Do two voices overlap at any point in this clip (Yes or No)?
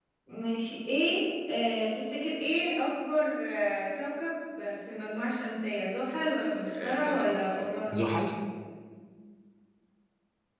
Yes